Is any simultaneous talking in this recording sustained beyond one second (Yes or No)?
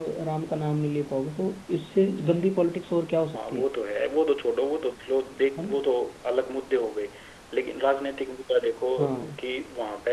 No